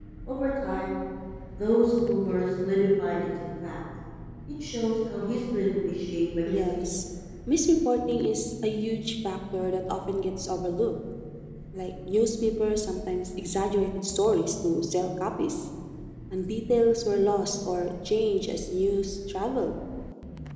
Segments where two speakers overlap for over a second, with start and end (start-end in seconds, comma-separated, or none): none